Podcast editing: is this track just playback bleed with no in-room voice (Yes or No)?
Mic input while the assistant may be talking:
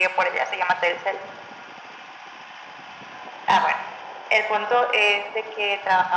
Yes